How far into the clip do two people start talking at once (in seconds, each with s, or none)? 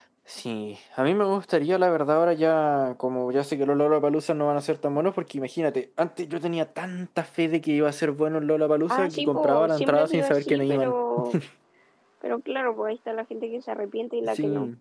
8.9 s